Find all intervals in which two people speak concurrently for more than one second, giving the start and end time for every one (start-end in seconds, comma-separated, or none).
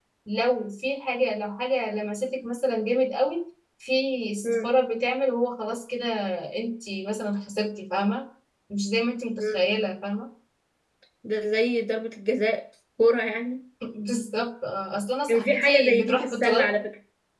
15.3-16.7